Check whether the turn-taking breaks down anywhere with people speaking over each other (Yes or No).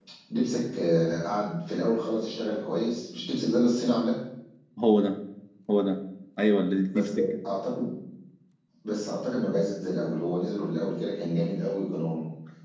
No